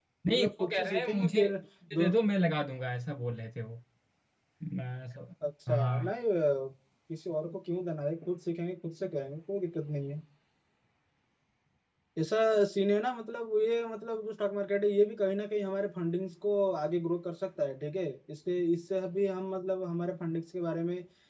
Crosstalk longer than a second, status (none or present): present